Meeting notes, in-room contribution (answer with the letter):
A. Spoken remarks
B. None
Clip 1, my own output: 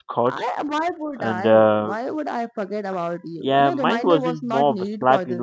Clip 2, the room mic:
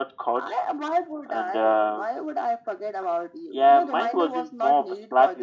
B